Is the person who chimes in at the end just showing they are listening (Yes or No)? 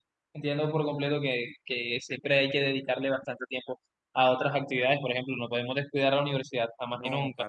No